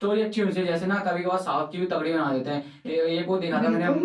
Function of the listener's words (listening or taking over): listening